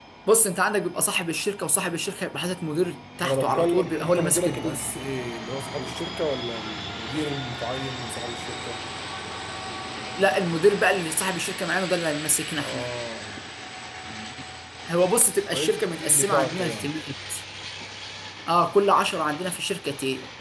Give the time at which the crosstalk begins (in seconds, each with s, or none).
3.2 s